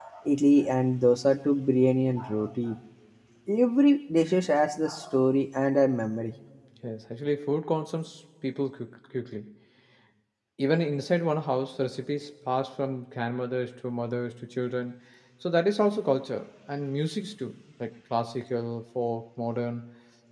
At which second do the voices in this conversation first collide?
none

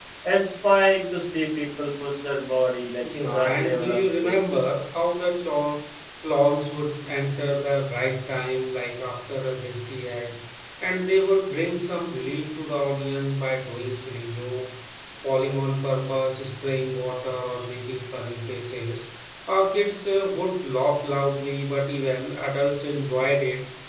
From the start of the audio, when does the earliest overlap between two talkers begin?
3.0 s

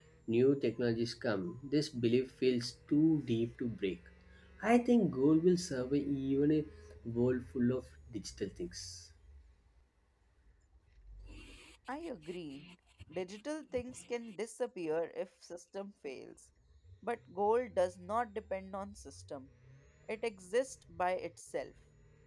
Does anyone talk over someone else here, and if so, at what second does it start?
none

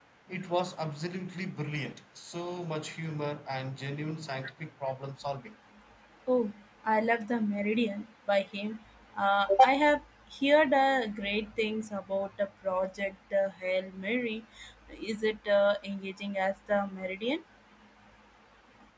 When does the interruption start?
none

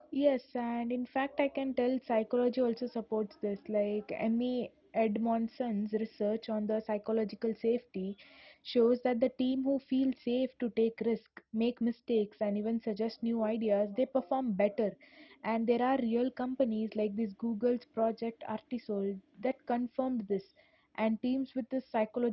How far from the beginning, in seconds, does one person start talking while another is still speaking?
none

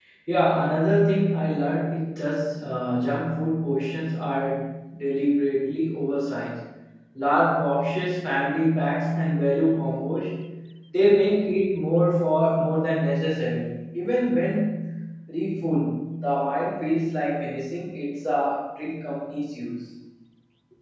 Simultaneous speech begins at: none

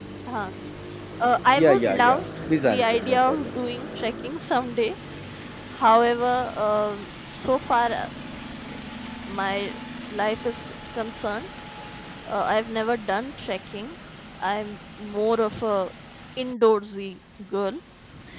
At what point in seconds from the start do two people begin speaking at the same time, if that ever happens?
1.6 s

